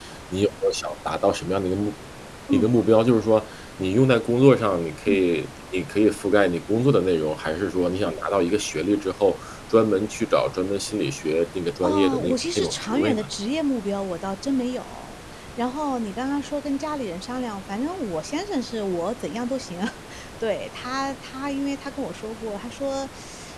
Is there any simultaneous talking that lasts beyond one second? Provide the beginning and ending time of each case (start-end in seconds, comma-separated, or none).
11.8-13.2